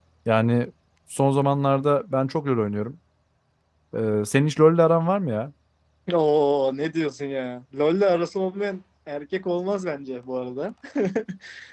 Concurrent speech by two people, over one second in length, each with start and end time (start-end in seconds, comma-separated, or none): none